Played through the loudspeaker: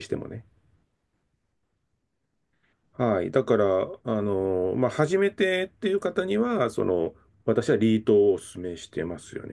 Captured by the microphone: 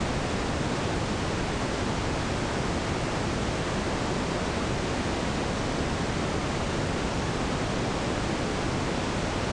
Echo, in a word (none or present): none